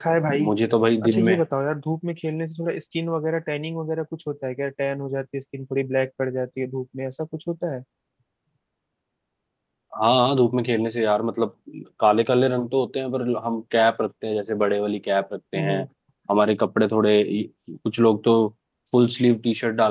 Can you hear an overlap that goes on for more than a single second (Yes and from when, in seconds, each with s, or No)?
No